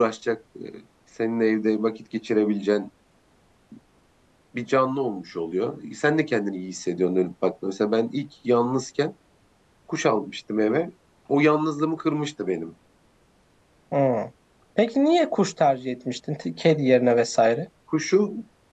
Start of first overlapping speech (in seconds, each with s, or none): none